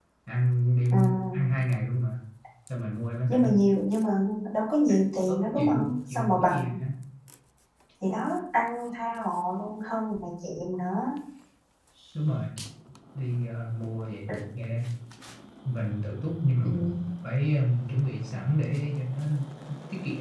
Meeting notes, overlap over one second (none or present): present